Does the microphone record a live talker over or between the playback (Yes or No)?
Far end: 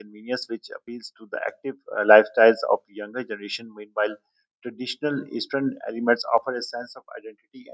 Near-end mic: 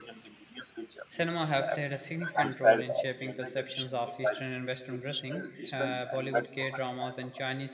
Yes